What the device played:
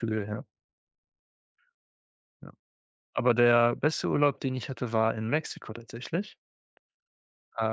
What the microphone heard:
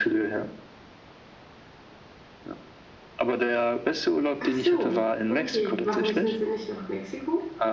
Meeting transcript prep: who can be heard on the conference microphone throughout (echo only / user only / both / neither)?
both